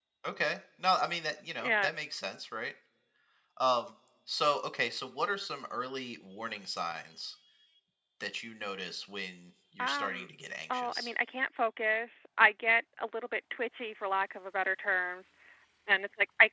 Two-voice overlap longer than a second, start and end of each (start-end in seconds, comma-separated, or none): none